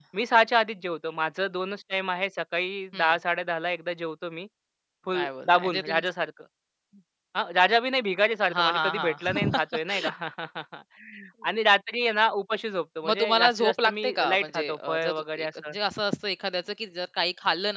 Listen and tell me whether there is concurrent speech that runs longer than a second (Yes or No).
Yes